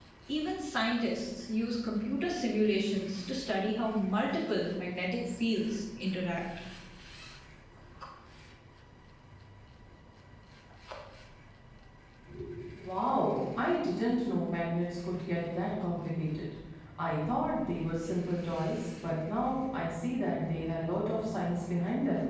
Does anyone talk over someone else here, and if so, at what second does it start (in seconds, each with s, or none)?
none